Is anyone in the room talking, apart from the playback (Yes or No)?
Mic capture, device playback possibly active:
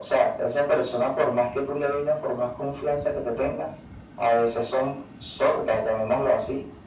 No